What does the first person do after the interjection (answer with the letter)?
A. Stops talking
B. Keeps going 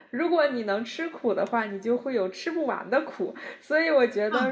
B